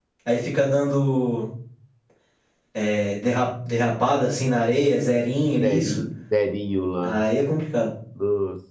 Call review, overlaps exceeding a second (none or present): none